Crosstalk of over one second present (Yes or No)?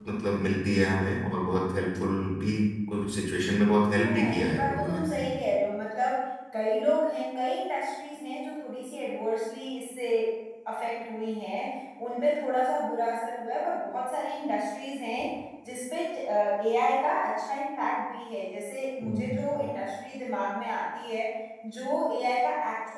Yes